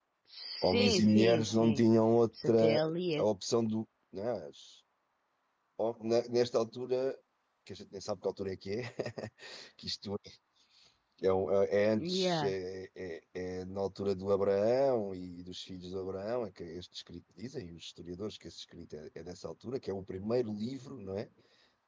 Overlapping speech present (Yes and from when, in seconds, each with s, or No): Yes, from 0.6 s